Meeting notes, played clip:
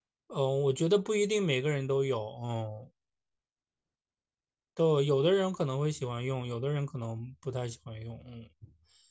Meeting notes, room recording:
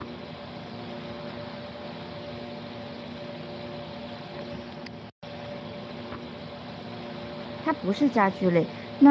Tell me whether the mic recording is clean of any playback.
Yes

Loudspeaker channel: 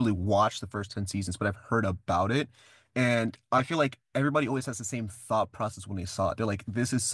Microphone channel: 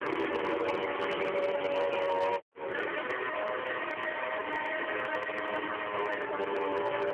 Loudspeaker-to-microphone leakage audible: No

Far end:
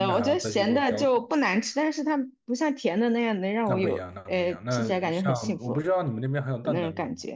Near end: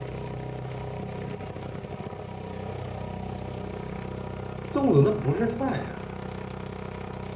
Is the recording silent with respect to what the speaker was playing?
Yes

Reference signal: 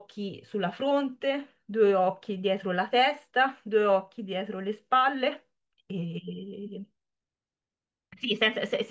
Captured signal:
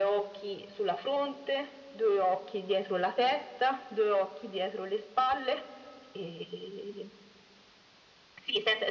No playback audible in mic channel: No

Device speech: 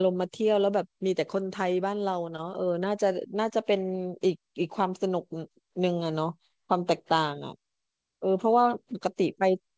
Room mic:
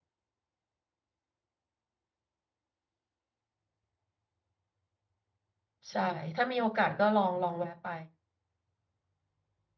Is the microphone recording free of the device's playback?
Yes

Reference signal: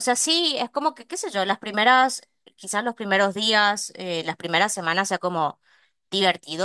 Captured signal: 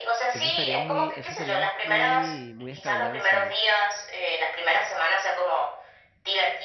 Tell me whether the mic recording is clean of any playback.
No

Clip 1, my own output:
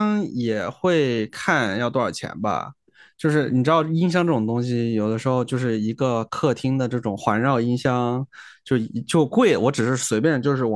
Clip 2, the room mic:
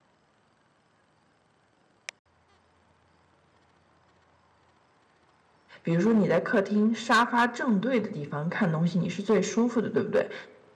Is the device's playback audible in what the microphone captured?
No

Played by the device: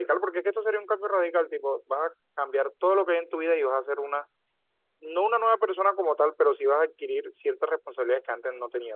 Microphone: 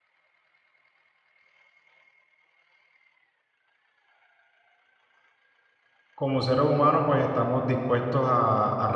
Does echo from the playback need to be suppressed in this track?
No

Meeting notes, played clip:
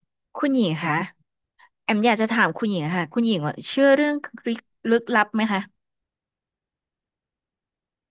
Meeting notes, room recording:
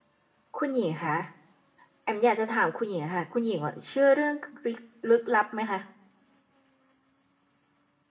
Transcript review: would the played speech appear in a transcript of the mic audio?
Yes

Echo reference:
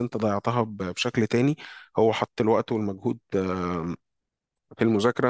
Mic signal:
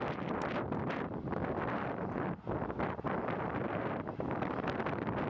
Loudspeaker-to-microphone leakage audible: No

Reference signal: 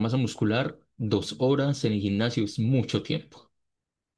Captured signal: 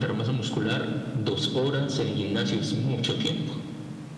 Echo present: Yes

